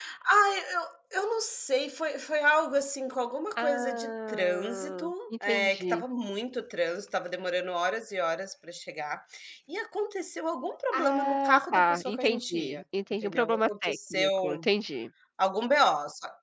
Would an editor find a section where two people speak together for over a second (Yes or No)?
Yes